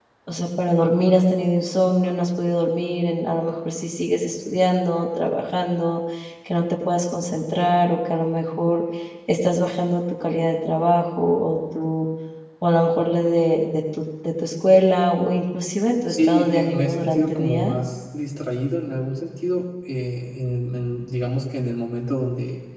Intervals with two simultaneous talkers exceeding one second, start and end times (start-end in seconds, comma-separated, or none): 16.1-17.7